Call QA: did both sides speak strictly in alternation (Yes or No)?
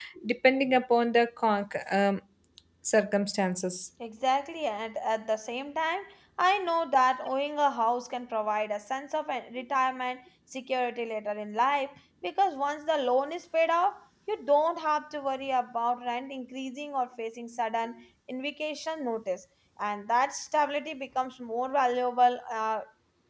Yes